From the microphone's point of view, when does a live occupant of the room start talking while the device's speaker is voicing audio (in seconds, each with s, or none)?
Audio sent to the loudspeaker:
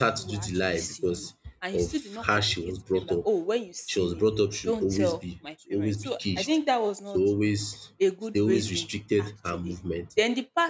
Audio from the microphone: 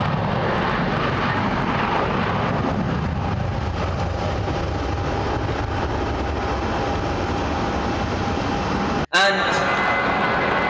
9.1 s